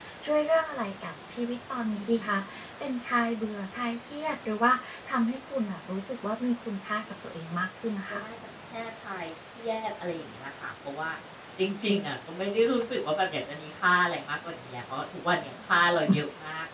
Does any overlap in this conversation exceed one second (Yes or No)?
No